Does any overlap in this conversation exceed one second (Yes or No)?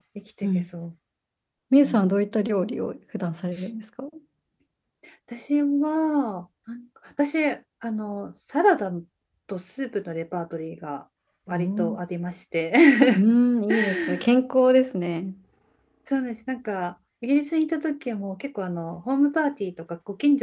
No